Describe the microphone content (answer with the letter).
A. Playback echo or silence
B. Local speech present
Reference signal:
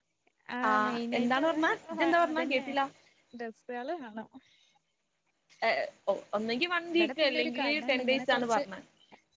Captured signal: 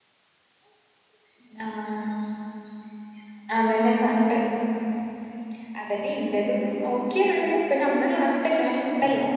B